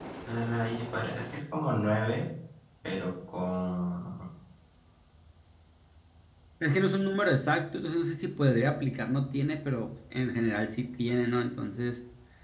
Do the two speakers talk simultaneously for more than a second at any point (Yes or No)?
No